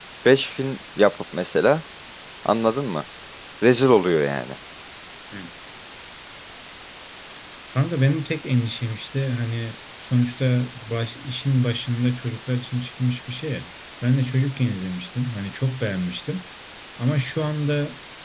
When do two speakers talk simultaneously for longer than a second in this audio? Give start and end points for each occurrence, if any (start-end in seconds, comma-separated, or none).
none